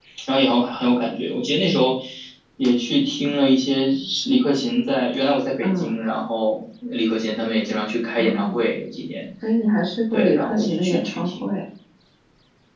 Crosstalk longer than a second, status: present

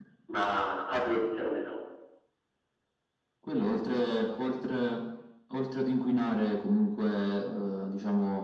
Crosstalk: none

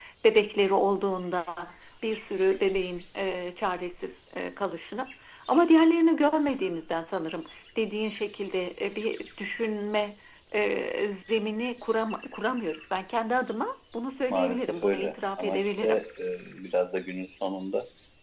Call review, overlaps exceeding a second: present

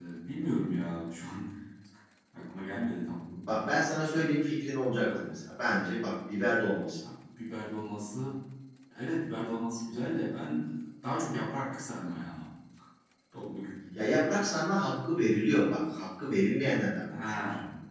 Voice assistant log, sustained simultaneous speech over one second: none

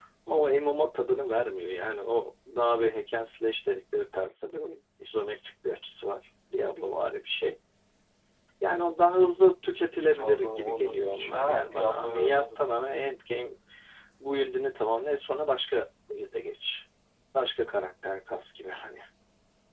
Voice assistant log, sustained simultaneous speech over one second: present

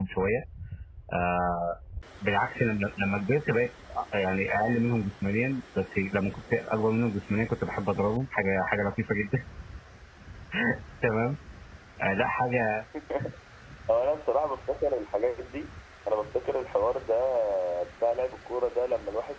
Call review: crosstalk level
none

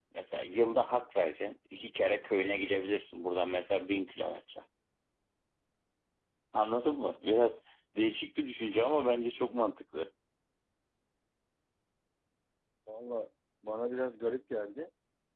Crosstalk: none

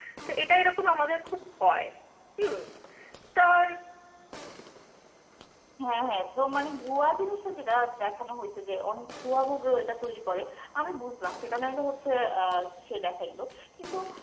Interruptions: none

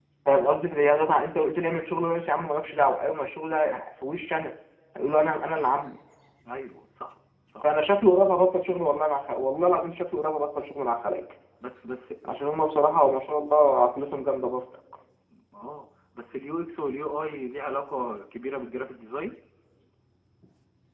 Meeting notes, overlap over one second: none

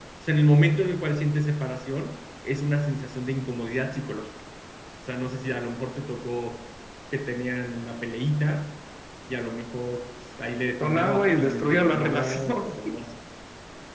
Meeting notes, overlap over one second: present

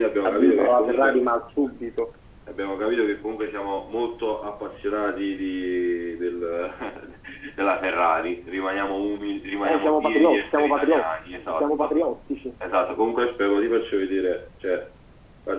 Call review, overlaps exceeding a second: present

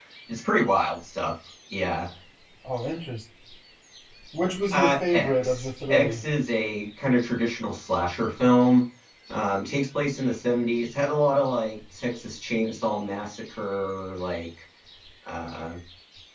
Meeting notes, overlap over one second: present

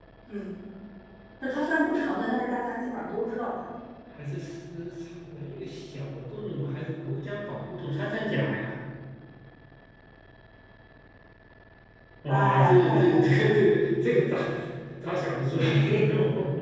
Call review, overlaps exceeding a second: present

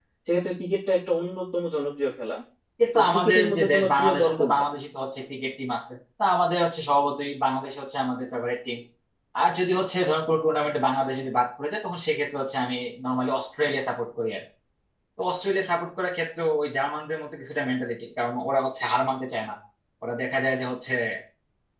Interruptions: present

